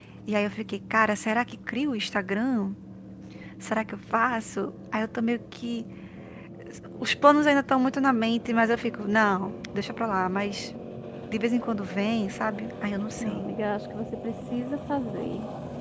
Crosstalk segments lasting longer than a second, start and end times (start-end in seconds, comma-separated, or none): none